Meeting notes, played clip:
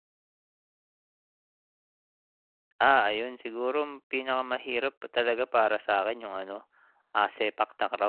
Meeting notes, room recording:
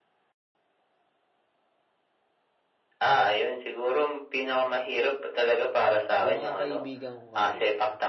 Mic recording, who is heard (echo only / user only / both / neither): both